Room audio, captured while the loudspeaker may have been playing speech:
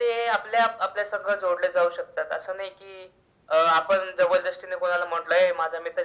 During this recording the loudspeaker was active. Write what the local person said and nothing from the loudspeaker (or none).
none